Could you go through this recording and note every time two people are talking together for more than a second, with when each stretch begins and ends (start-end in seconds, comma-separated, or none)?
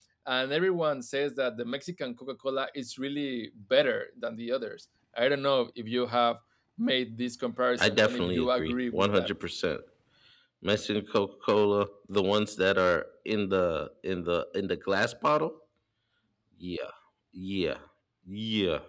7.8-9.3